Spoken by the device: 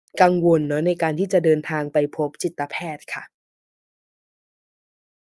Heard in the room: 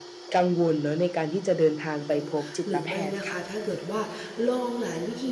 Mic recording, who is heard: both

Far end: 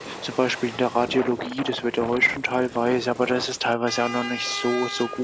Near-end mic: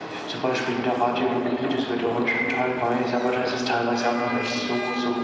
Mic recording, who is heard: both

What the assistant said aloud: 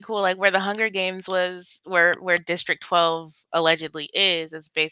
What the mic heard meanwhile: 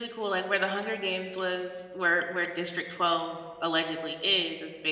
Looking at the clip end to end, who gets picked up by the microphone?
echo only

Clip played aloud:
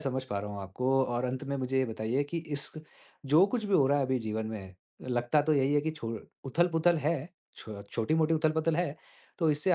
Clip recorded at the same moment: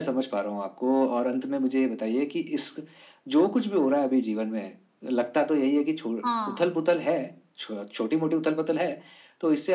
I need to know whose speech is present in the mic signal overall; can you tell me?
both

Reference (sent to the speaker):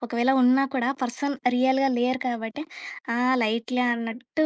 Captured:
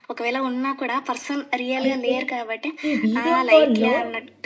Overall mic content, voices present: both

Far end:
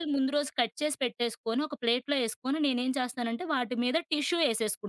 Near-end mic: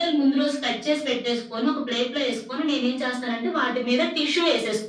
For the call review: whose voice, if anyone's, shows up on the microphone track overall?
echo only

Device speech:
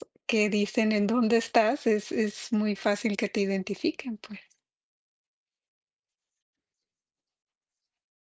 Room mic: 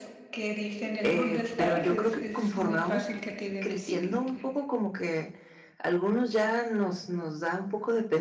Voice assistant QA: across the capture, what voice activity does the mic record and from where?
both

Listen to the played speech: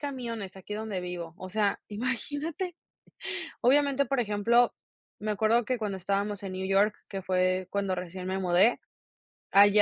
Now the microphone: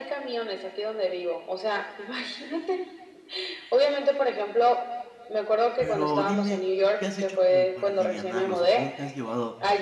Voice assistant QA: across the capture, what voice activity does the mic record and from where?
both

